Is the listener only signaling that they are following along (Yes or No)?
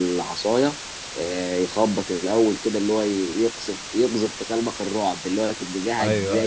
Yes